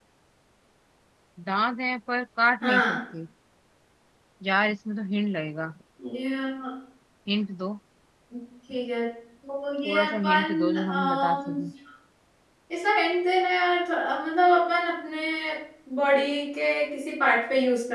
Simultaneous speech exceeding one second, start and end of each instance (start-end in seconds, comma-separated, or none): 9.8-11.5